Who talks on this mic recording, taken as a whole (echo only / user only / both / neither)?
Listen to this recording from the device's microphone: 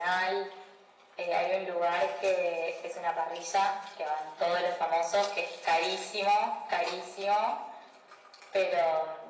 echo only